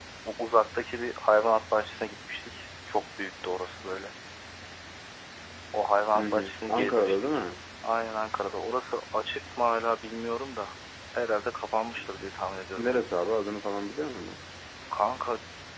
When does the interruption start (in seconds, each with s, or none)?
6.2 s